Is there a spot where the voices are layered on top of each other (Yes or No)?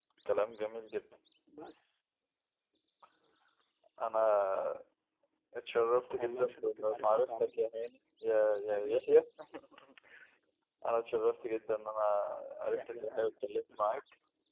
Yes